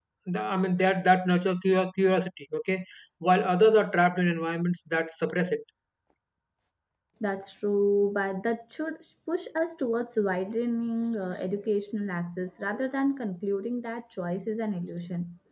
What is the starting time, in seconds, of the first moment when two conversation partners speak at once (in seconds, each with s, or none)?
none